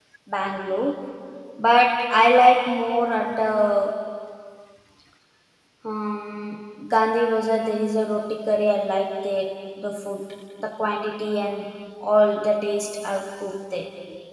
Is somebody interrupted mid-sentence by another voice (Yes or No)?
No